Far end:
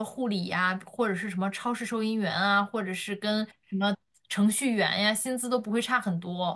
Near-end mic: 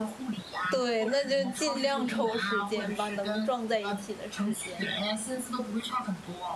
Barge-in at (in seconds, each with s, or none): 0.7 s